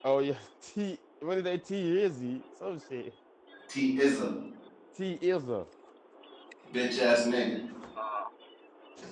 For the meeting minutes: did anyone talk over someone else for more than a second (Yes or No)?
No